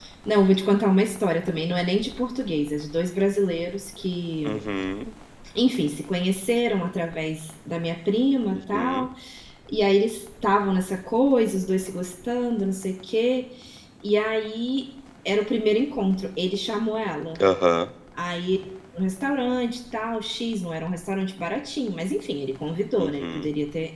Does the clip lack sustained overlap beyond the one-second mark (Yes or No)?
Yes